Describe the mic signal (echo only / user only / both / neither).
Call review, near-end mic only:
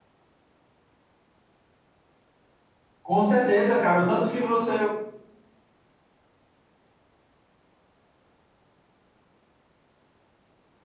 user only